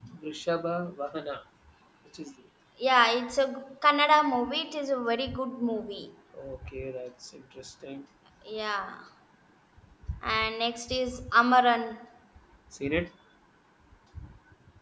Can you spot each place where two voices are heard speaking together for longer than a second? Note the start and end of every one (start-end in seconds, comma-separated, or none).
none